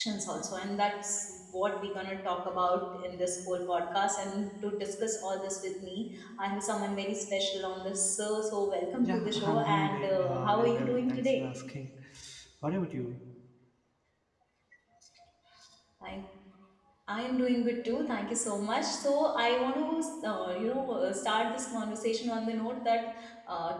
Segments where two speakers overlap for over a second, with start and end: 9.0-11.4

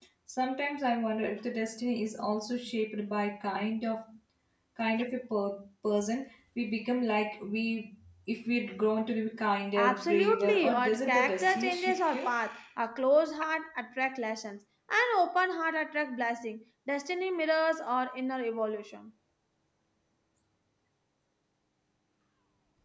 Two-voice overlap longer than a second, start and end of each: 9.8-12.3

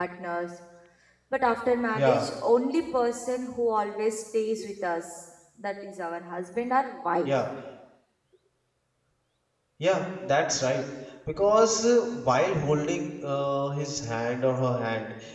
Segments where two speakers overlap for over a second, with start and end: none

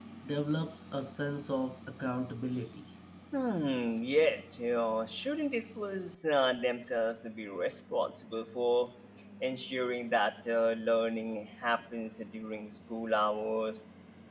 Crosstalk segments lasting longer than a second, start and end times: none

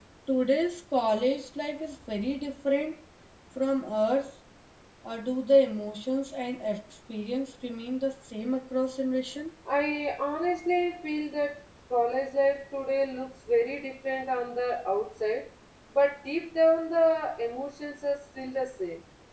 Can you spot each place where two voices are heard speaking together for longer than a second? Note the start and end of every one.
none

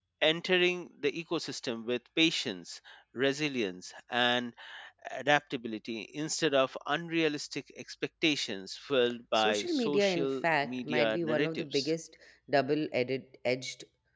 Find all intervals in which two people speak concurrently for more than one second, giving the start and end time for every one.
9.4-11.9

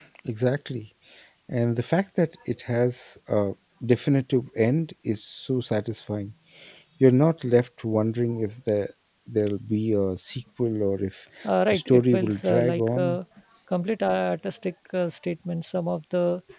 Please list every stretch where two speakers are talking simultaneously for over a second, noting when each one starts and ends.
11.7-13.2

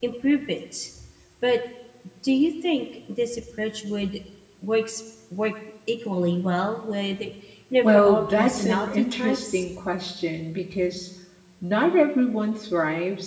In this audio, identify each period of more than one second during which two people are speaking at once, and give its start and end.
7.8-9.7

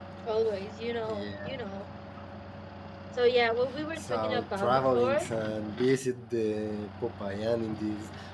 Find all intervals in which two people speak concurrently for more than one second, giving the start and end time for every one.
4.0-5.3

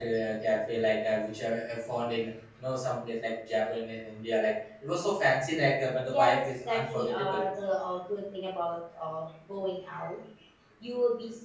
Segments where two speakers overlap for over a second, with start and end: 6.0-7.5

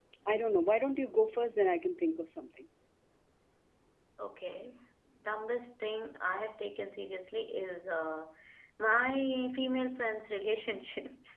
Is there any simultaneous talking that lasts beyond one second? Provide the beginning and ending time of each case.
none

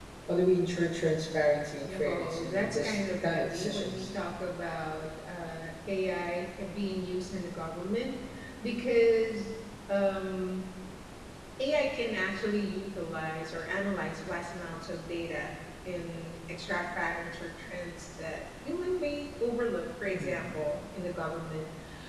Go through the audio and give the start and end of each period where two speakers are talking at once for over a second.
1.8-4.1

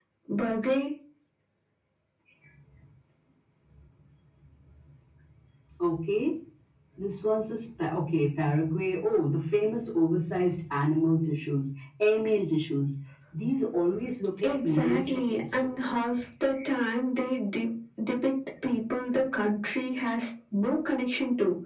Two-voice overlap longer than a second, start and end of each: 14.4-15.9

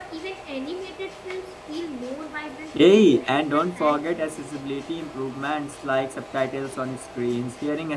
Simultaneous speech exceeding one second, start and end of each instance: 2.7-4.2

